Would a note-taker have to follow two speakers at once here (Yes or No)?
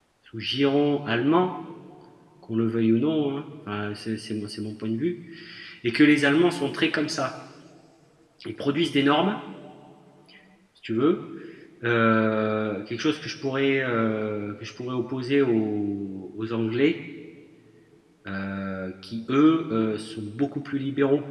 No